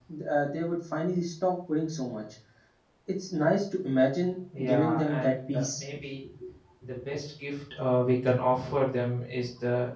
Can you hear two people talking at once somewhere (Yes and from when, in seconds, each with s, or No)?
Yes, from 4.5 s